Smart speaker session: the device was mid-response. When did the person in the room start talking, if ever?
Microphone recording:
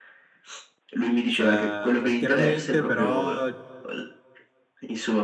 1 s

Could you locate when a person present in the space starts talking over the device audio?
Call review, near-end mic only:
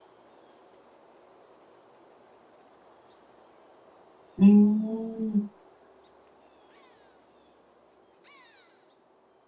4 s

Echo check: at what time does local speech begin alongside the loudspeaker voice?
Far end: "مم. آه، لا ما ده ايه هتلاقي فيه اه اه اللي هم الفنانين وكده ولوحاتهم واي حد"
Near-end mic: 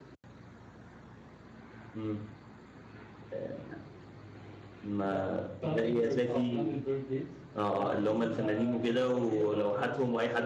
5 s

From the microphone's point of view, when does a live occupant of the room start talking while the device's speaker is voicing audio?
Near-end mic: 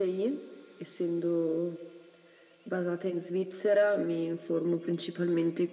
none

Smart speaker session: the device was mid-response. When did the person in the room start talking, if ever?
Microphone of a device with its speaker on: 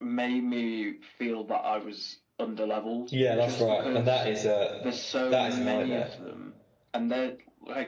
3 s

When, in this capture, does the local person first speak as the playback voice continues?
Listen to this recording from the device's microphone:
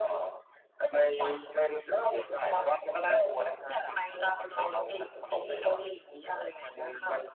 none

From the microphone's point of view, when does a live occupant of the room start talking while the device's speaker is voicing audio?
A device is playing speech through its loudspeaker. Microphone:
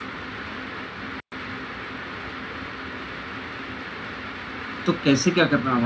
5 s

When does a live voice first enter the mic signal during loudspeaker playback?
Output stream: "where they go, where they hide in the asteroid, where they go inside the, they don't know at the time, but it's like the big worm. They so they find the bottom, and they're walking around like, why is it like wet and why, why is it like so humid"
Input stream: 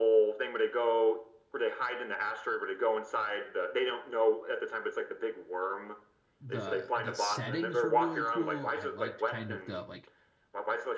6 s

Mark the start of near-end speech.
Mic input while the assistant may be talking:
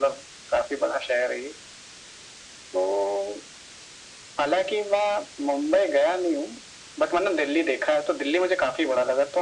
none

